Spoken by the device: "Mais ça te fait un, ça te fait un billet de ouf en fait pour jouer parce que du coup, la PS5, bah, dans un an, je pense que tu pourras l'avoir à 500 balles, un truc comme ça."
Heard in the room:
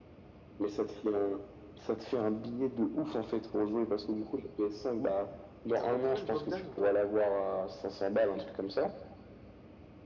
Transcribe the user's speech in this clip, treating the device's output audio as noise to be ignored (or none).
T'as beaucoup fait le Bogdan ou pas?